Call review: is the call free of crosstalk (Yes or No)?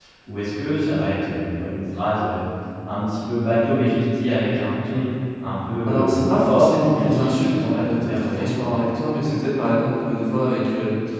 No